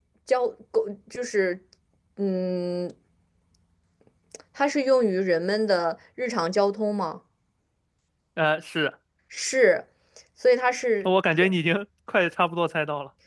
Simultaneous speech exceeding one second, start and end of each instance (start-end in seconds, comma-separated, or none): none